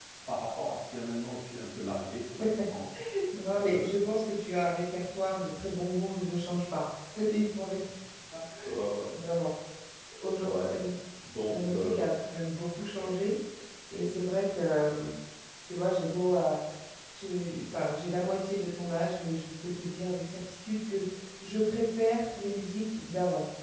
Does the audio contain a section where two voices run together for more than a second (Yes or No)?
No